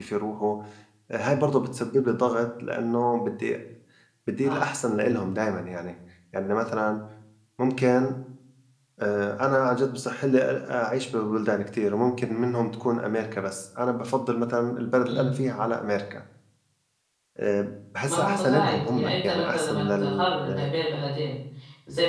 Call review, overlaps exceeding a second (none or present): present